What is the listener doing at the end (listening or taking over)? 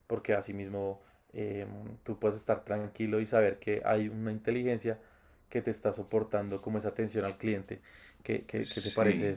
taking over